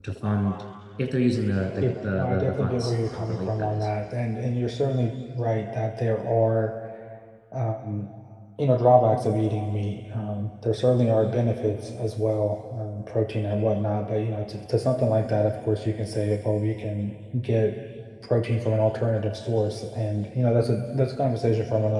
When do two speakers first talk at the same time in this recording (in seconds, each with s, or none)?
1.8 s